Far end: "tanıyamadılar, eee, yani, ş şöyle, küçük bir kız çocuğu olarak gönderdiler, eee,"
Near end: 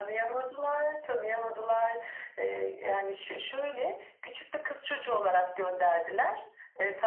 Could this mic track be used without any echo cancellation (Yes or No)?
No